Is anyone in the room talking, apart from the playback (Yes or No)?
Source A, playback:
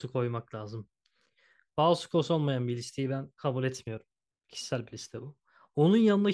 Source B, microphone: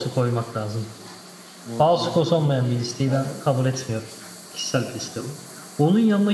Yes